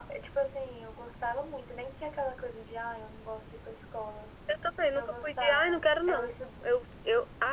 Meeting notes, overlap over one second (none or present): present